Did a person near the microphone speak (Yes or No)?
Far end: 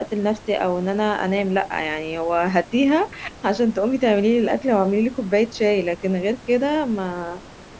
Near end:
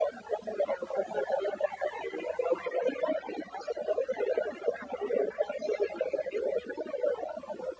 No